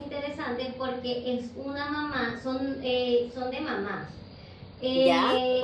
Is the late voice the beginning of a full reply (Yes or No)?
No